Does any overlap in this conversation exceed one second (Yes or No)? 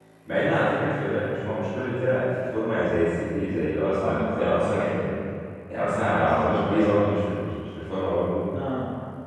Yes